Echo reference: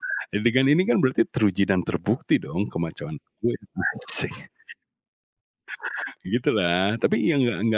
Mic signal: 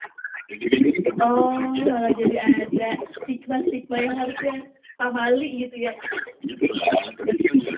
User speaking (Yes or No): Yes